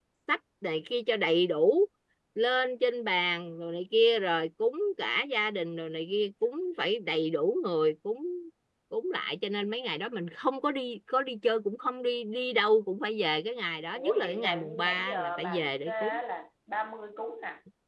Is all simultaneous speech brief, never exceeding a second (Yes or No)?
No